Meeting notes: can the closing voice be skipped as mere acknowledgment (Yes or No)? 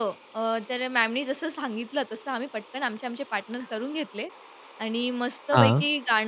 Yes